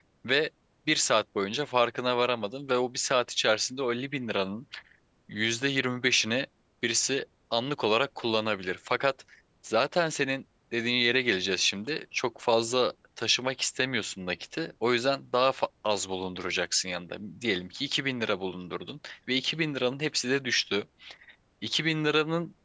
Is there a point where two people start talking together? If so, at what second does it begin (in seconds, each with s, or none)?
none